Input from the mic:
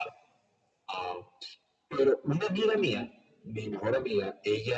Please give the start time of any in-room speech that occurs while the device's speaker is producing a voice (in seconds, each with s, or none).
2.8 s